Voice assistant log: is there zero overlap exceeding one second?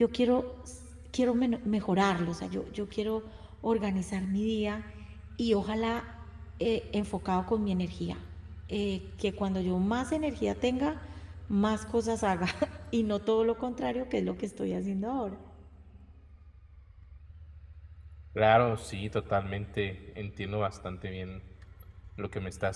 Yes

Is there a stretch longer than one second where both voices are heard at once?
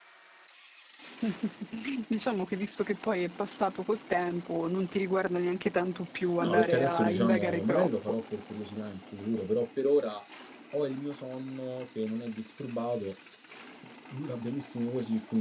Yes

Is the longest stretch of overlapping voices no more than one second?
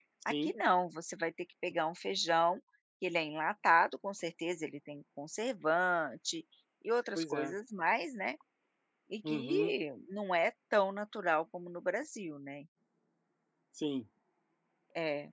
Yes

